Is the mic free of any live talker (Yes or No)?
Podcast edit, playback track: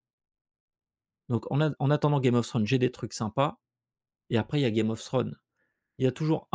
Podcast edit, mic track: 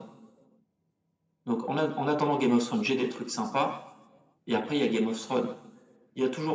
Yes